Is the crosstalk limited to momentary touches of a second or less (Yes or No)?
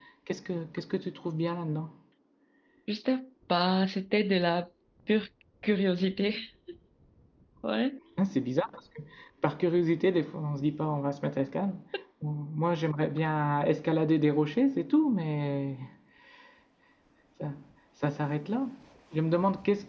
Yes